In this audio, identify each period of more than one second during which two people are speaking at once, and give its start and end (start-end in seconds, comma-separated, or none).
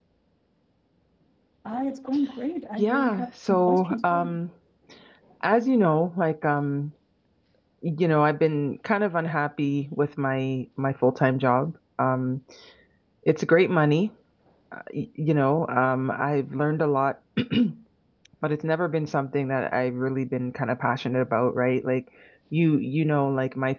2.8-4.4